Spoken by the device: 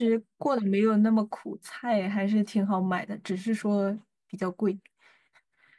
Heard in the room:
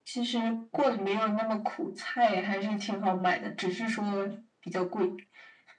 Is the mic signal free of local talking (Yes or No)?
Yes